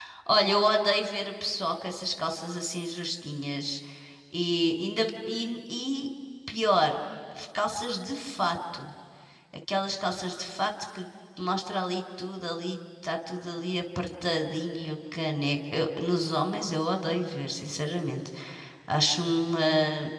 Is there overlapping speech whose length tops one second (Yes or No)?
No